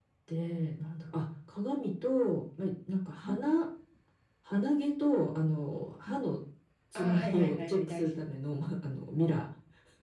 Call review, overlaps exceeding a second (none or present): present